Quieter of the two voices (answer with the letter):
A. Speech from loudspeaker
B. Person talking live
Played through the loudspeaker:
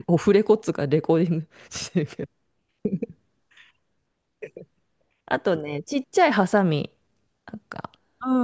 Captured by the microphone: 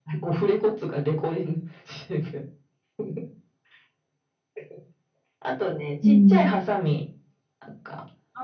A